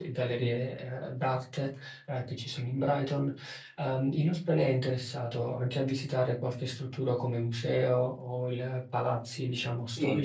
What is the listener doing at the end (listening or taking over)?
taking over